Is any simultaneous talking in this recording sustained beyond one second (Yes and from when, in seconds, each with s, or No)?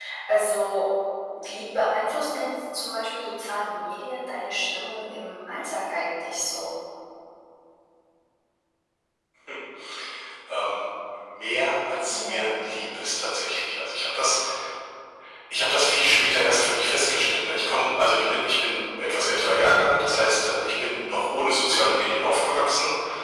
No